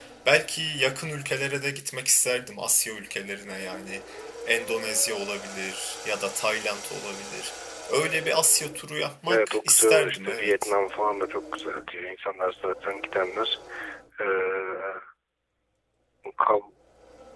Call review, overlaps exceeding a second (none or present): present